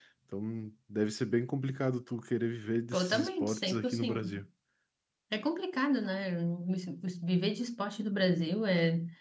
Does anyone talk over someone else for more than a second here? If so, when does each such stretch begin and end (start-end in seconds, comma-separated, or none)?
2.9-4.3